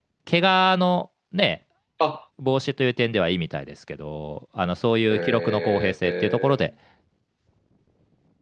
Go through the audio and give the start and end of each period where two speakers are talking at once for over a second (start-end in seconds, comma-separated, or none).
5.1-6.6